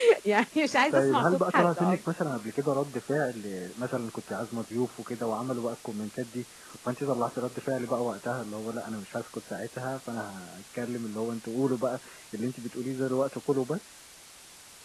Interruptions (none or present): present